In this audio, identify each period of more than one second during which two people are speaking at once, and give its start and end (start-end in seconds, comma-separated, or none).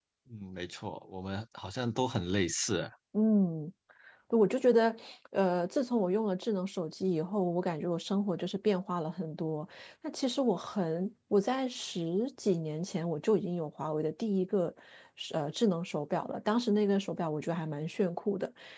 none